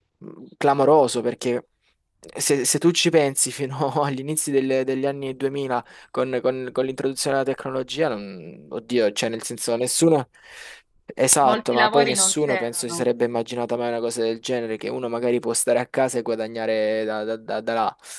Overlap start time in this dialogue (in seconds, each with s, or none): 11.4 s